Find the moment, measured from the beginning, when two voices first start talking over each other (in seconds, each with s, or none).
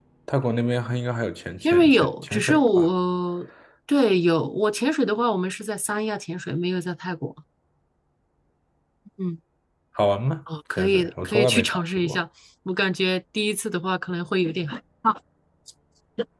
1.6 s